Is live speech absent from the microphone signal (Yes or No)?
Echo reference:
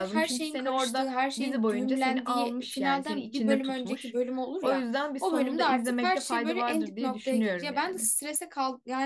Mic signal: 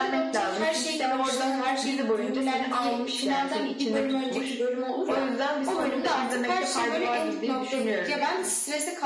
No